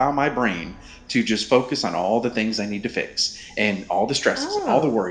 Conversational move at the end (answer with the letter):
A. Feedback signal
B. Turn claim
A